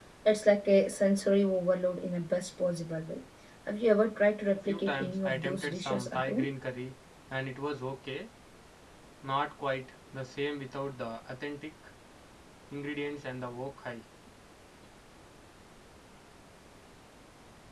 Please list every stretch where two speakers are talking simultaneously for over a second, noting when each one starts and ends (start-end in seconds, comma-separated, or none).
4.7-6.5